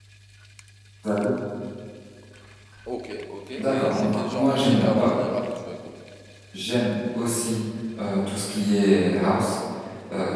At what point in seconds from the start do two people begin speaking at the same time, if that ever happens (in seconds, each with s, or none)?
3.6 s